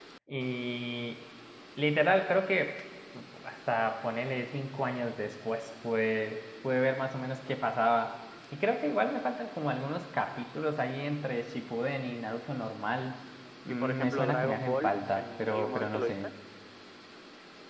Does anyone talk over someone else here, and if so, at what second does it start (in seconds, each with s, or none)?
13.7 s